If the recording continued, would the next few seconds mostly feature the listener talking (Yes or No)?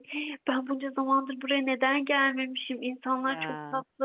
No